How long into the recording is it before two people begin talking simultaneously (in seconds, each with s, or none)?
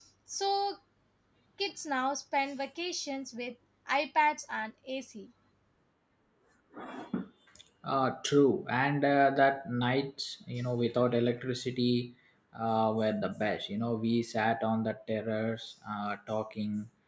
none